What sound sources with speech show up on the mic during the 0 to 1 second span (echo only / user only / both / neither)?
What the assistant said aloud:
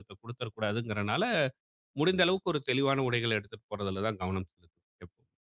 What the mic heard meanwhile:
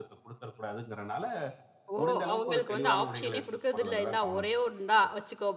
echo only